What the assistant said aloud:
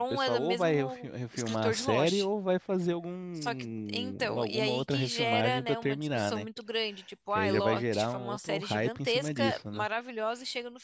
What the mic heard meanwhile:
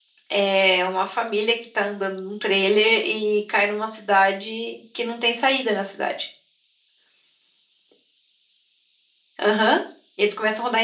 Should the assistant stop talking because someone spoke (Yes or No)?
Yes